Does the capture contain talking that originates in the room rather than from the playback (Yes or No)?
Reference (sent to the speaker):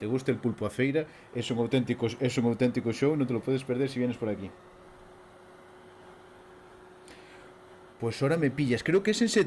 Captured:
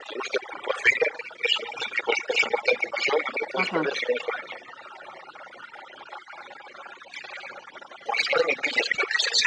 Yes